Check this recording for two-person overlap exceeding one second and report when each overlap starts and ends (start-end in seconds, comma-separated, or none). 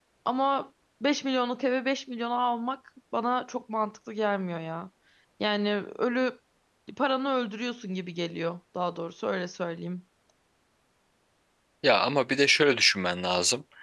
none